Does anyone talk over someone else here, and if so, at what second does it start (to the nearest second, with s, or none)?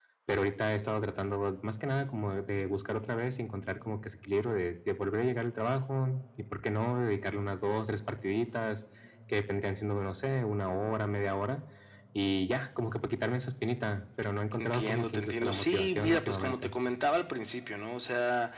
15 s